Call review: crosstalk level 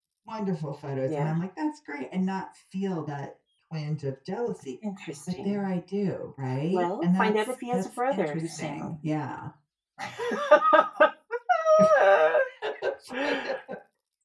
present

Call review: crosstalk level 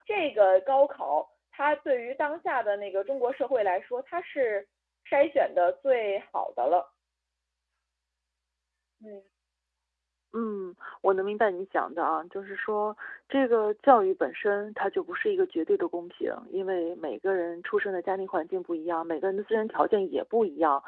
none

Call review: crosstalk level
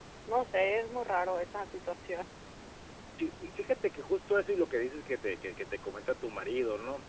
none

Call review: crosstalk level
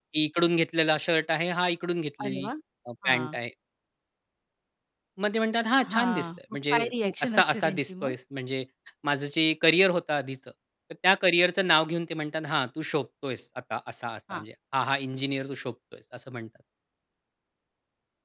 present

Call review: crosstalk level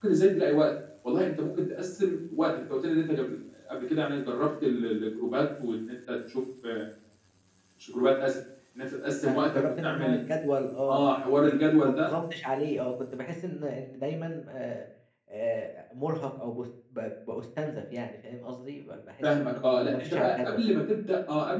present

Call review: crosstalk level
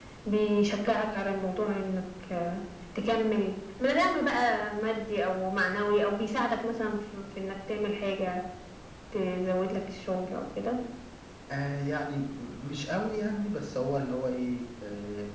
none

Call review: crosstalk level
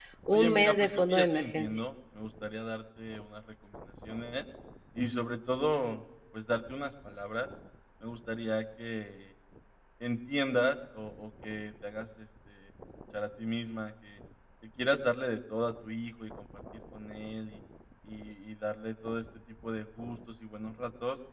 present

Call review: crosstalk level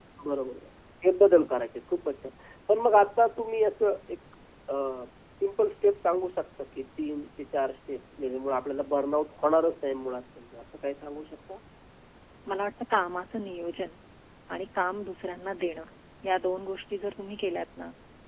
none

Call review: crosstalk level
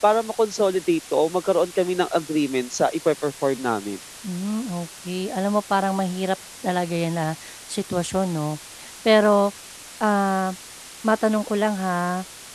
none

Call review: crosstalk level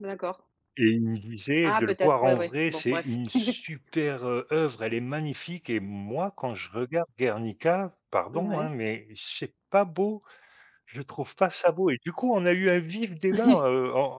present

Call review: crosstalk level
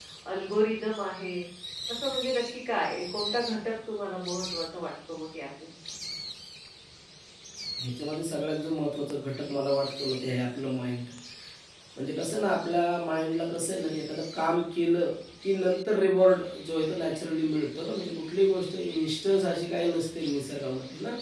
none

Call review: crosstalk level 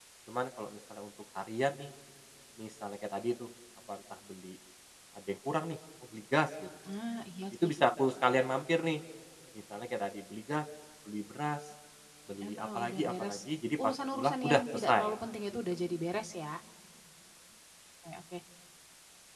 present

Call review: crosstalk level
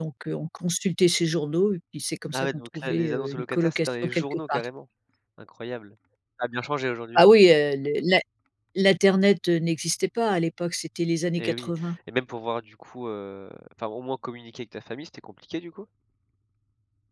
present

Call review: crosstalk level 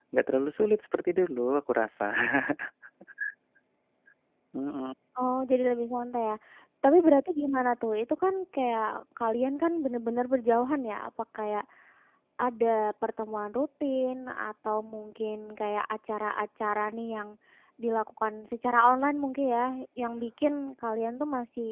none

